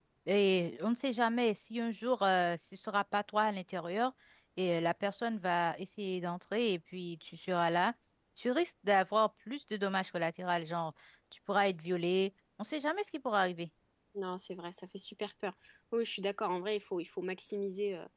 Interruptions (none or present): none